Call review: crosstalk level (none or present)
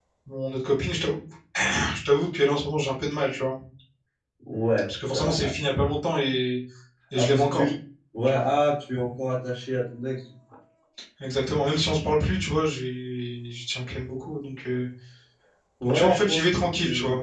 present